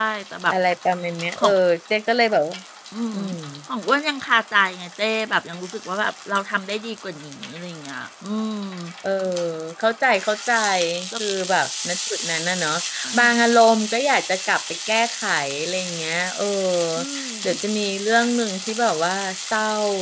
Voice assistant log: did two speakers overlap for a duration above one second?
No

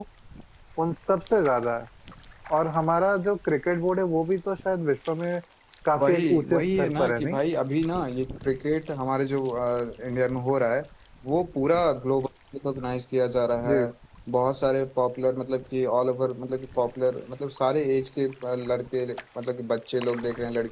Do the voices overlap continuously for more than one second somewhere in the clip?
Yes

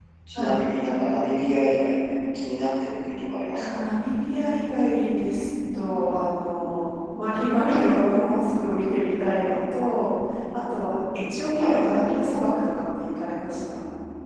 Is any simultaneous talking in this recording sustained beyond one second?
No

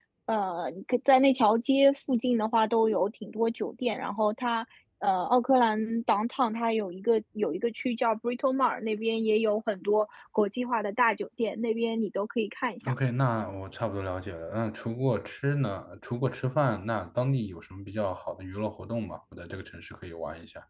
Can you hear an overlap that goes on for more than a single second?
No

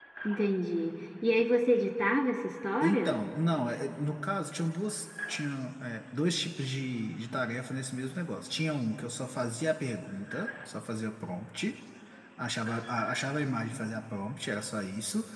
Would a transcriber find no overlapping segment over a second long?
Yes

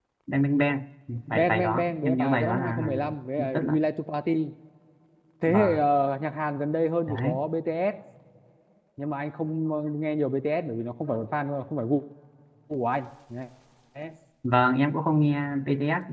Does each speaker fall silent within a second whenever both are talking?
No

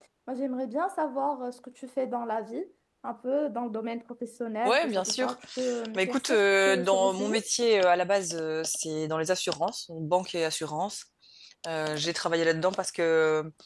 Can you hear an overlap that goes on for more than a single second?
Yes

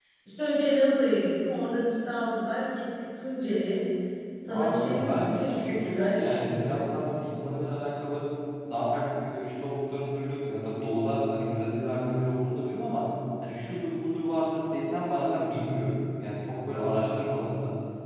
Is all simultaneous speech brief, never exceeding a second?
No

